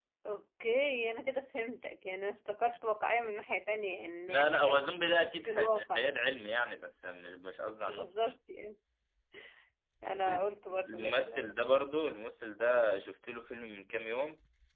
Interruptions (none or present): present